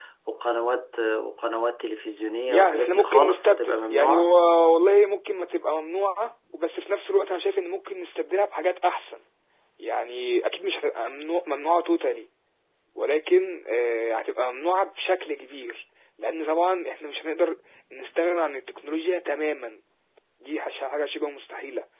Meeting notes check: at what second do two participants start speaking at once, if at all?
2.5 s

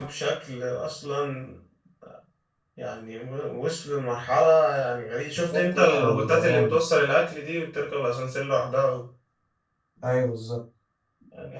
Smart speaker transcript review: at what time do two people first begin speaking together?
5.5 s

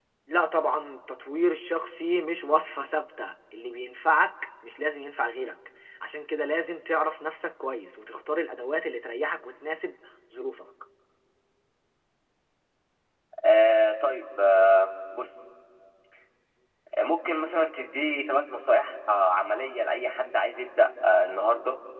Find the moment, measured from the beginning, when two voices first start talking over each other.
none

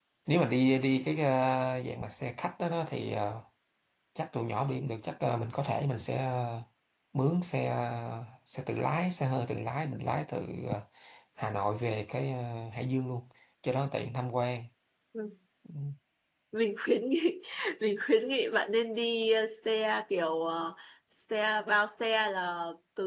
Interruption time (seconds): none

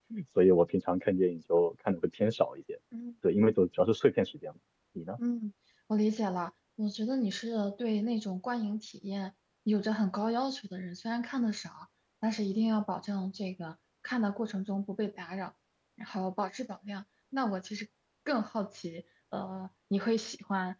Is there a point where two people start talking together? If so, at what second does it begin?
none

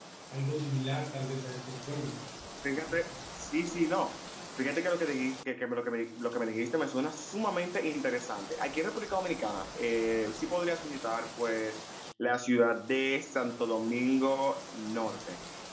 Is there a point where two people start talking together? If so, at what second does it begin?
none

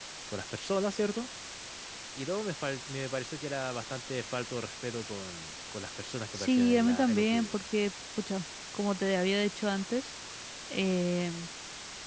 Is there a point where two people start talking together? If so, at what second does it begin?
6.3 s

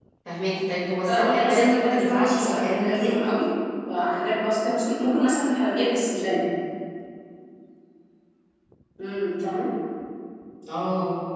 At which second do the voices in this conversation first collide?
1.1 s

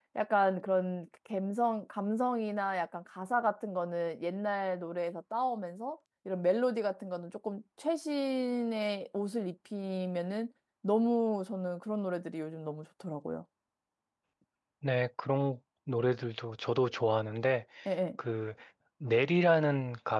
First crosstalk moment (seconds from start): none

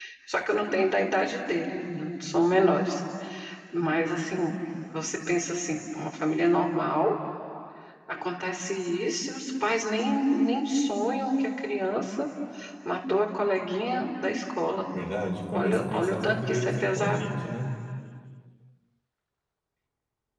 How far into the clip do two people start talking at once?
15.6 s

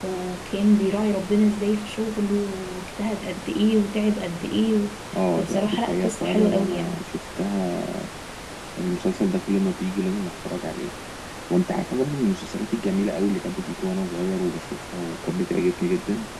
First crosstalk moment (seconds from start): 5.4 s

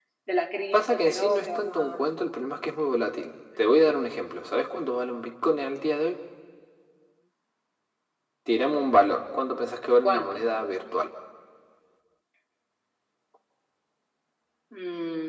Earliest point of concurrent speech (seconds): 0.7 s

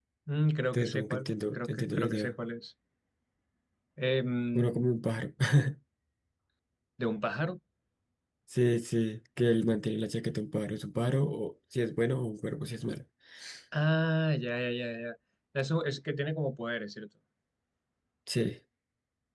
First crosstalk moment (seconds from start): 0.7 s

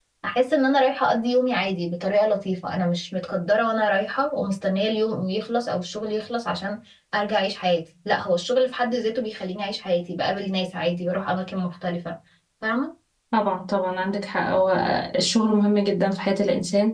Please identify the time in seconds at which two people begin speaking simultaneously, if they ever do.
none

